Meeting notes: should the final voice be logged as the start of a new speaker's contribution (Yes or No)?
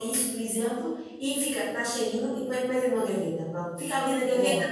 No